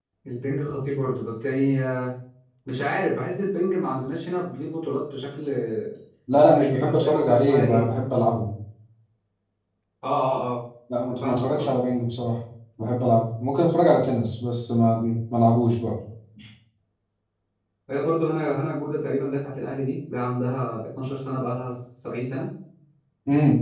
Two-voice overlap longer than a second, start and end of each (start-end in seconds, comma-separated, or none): 6.3-7.9